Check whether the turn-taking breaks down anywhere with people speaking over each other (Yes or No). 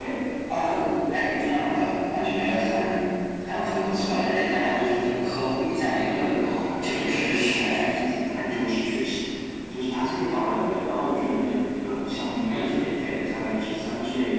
Yes